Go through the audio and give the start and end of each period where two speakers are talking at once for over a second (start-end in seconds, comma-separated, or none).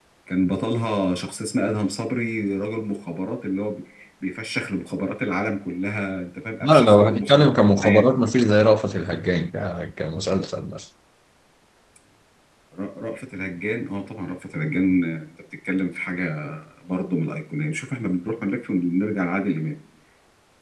6.6-8.0